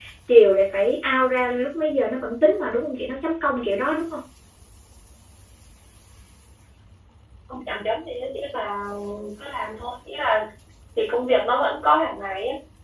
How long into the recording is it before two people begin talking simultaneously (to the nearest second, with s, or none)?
none